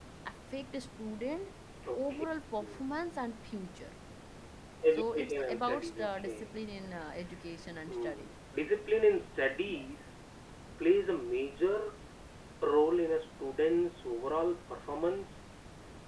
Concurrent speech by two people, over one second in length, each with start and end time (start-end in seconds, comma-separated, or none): 5.0-6.5